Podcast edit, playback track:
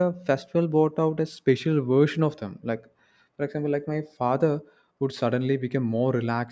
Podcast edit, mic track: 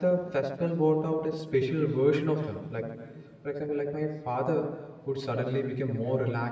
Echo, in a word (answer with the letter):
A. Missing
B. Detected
B